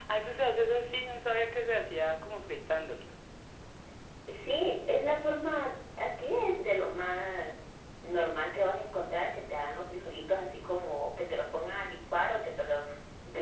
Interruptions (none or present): none